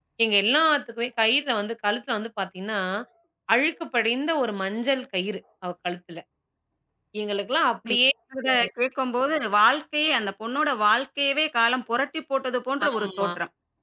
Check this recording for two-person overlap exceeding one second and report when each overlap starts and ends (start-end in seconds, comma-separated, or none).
none